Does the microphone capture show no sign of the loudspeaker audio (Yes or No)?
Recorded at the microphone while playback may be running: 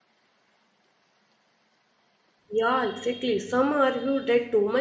Yes